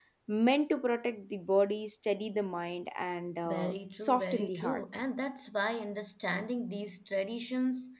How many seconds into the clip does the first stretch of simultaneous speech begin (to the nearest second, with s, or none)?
3 s